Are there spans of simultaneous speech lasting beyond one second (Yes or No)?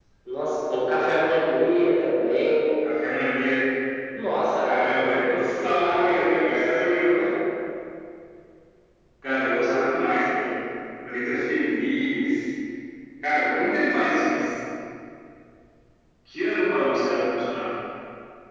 Yes